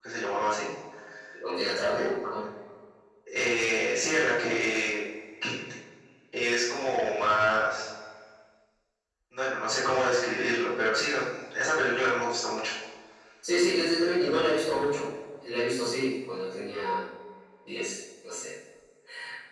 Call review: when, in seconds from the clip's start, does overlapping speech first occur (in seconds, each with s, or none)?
none